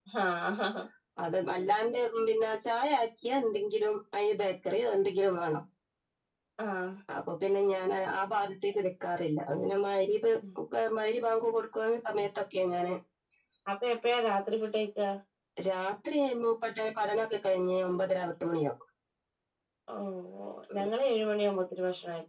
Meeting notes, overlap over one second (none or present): none